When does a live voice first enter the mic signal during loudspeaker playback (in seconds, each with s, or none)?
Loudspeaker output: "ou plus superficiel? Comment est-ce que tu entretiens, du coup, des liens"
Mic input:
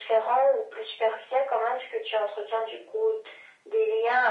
none